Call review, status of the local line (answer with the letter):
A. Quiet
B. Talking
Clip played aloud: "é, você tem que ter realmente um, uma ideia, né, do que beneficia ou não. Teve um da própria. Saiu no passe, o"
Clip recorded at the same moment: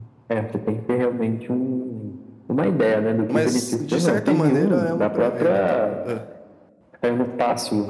B